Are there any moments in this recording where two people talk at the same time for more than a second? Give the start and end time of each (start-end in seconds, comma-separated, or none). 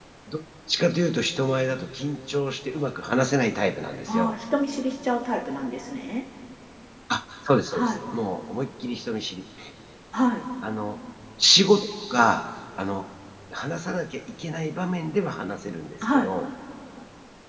none